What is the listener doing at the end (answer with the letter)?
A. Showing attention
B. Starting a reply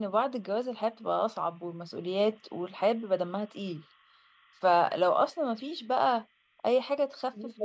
A